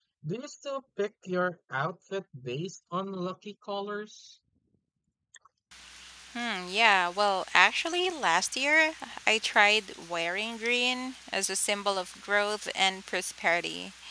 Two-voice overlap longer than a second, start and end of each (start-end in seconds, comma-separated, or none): none